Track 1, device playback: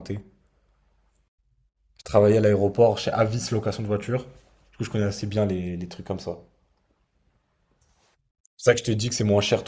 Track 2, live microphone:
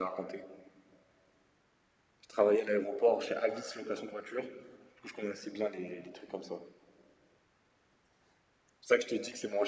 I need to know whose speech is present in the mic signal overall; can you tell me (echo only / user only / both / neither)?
echo only